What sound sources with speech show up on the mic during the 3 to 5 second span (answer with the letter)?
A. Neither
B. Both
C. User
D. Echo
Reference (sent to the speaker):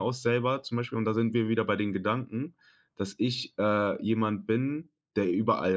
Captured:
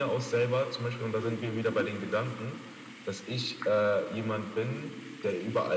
D